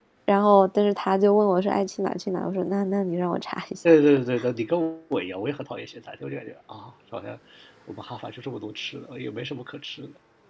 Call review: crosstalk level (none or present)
none